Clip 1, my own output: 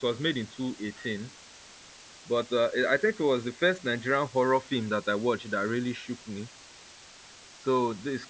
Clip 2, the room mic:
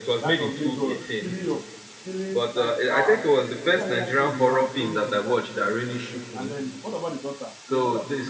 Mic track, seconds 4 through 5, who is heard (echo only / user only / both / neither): both